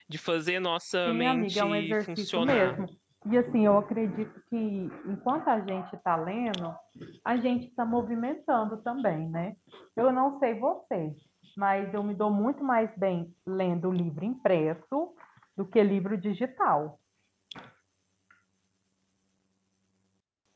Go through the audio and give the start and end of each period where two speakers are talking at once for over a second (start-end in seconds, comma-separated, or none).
1.1-2.8